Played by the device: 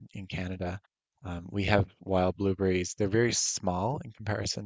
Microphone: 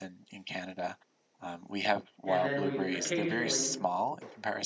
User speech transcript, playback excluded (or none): And then we'd occasionally,